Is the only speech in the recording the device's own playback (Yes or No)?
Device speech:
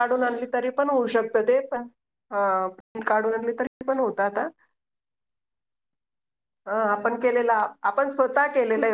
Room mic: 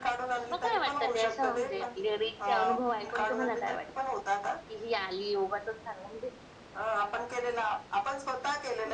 No